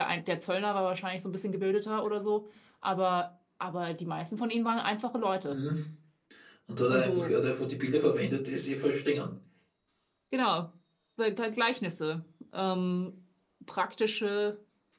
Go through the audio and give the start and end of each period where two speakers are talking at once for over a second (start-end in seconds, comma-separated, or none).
none